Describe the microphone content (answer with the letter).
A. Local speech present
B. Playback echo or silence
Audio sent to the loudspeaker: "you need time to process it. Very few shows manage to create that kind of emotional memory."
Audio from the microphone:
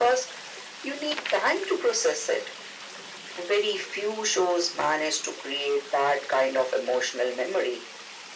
B